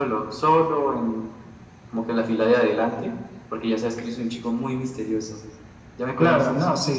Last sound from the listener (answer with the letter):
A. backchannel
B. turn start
B